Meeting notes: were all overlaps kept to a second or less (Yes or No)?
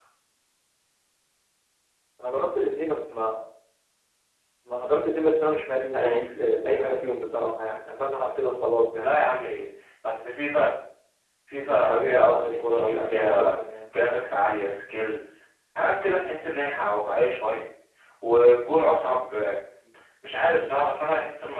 No